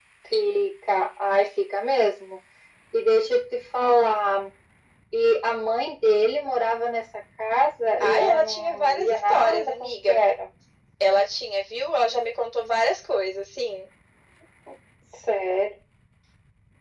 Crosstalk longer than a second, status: present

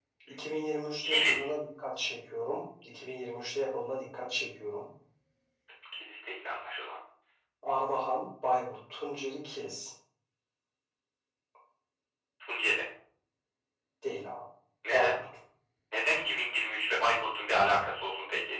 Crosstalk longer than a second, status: none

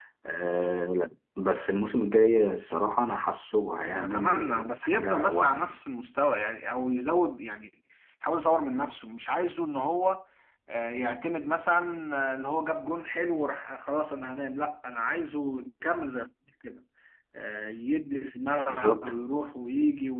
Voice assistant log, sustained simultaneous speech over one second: present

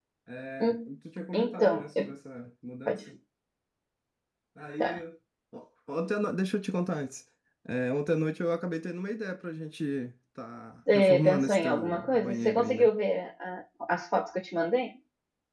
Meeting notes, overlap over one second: present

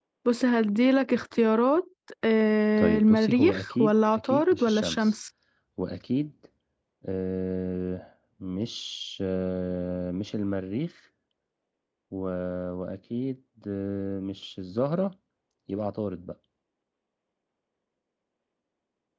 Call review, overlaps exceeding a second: present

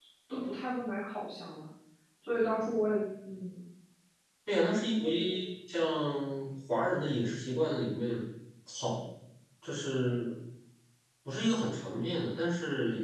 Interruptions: none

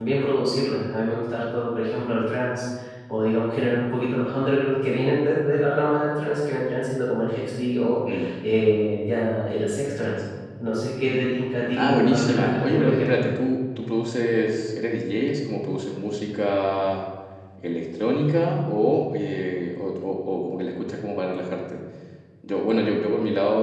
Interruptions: present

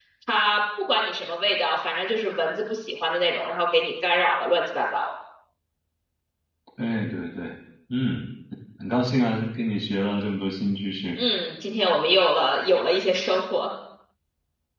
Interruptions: none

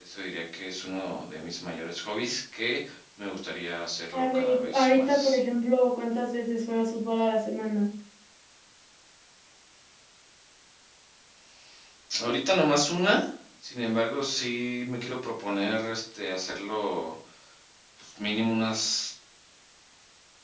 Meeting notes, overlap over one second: present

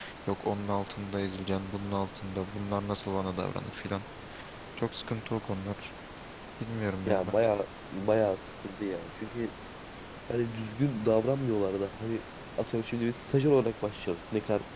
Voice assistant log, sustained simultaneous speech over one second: none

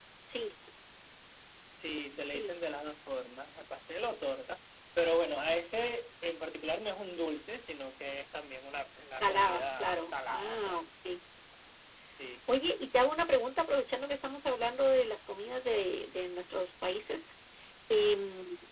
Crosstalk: present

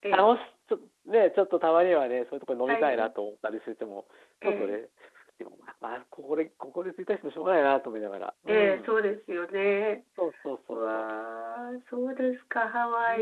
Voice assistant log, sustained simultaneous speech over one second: none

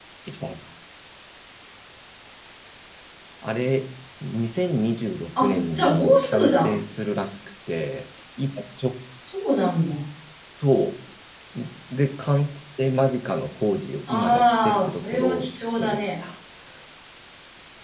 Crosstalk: present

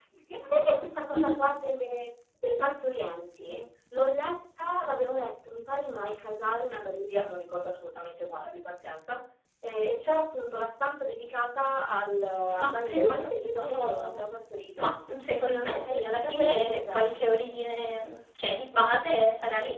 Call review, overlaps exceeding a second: present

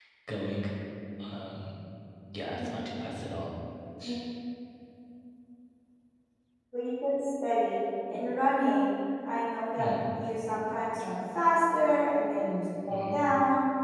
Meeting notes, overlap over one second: none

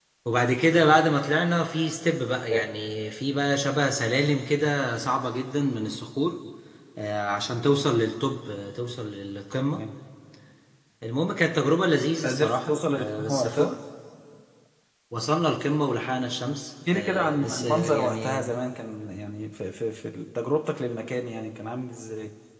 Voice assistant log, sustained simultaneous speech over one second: present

